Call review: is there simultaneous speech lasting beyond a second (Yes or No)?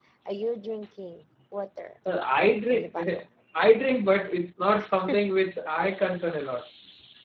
No